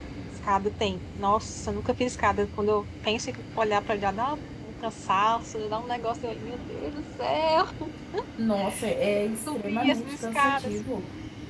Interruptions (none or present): present